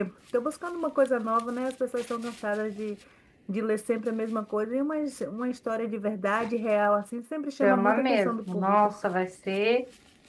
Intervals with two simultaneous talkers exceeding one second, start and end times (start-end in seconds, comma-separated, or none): 7.6-9.0